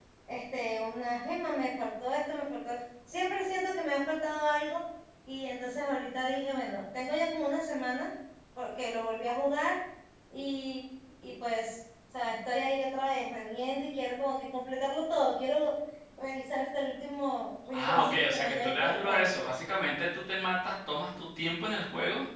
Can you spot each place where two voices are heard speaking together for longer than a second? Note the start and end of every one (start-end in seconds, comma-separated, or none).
17.7-19.3